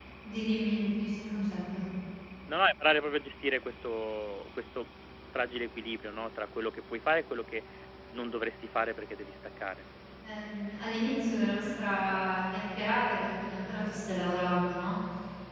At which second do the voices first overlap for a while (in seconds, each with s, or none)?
none